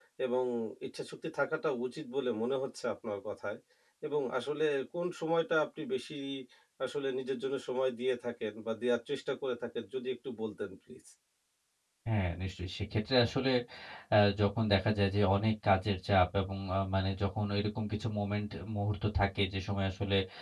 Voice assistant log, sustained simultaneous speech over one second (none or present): none